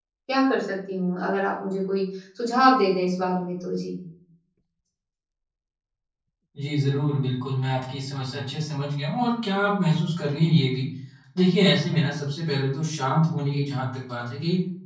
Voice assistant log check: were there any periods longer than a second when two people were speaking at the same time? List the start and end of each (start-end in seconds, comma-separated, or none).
none